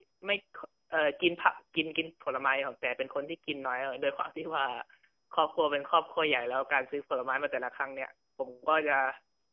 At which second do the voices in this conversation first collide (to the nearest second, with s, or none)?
none